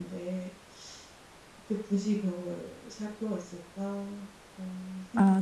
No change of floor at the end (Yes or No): No